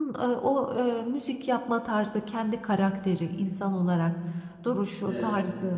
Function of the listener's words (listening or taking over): listening